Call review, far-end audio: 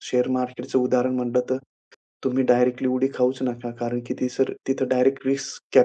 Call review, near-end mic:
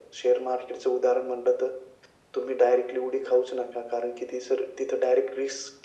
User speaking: No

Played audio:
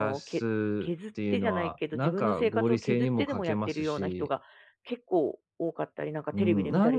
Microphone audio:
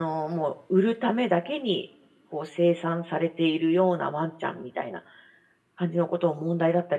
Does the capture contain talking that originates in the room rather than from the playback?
Yes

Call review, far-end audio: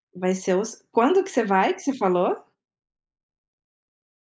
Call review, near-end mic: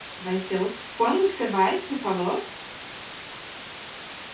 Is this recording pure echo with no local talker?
Yes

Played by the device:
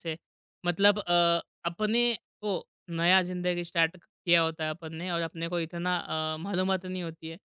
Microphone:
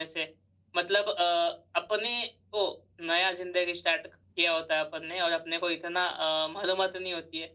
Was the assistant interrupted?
No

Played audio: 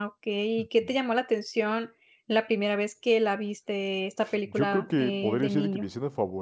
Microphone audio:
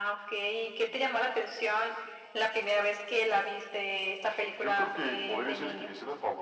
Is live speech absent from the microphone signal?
Yes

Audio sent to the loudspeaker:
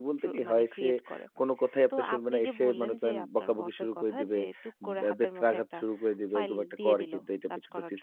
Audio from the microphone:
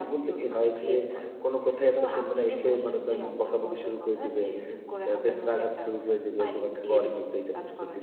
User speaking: No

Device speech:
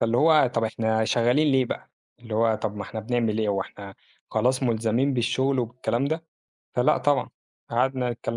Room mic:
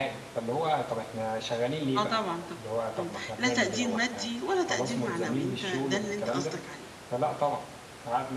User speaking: Yes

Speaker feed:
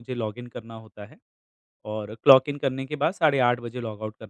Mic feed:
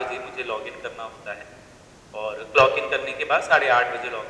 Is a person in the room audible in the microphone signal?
No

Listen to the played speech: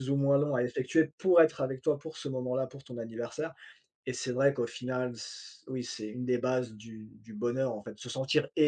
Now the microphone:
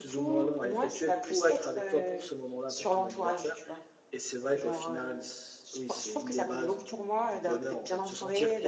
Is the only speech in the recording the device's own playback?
No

